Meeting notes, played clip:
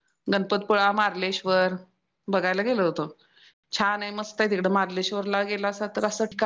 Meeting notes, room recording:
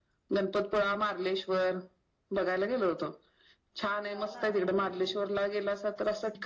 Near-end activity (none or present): present